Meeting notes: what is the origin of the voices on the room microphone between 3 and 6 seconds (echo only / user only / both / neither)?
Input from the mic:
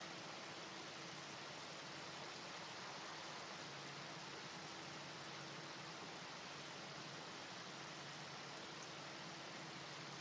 neither